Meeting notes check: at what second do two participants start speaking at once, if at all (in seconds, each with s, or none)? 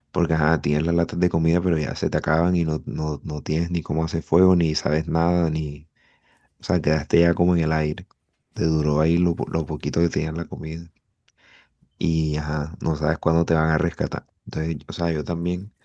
none